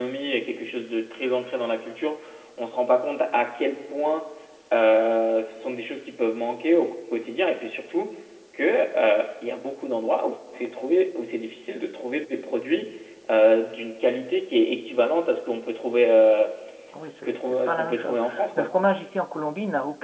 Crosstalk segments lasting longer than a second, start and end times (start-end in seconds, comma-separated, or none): 17.2-18.7